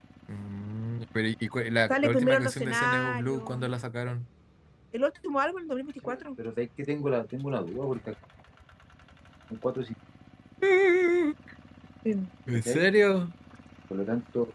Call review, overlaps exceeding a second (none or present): present